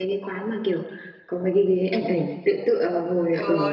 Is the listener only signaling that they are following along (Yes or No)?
No